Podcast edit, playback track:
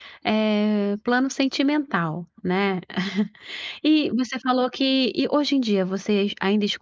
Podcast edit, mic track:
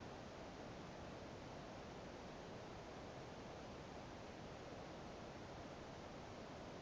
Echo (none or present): none